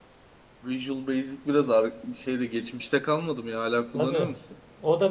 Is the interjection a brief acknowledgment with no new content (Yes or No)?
No